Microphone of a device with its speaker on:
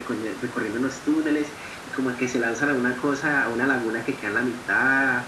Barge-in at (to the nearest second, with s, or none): none